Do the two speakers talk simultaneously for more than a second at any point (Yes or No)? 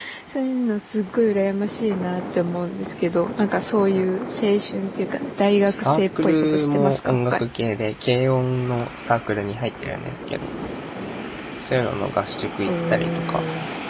Yes